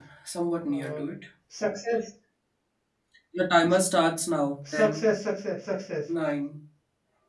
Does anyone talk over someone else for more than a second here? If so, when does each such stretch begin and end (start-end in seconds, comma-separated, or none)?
none